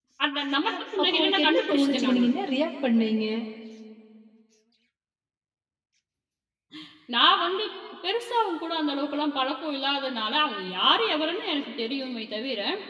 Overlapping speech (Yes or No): Yes